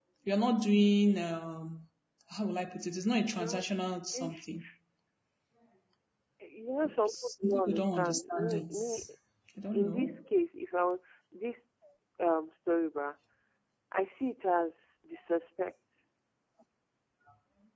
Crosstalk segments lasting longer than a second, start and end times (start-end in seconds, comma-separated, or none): 7.1-8.8